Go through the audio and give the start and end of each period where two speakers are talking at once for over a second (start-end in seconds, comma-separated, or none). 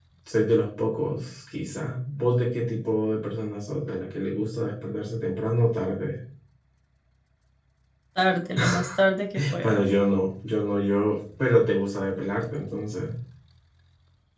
none